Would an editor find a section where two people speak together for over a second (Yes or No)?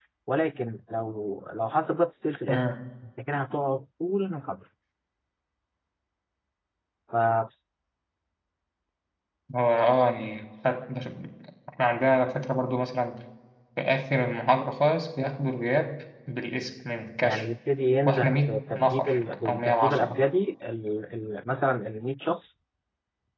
Yes